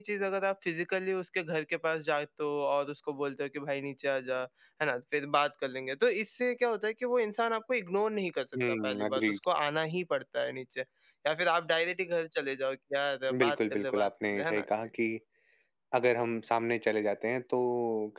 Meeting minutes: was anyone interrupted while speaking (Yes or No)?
Yes